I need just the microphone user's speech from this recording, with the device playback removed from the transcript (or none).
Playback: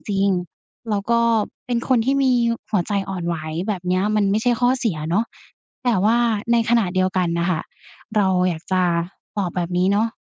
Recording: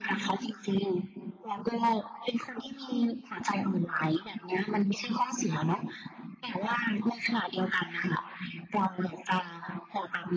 none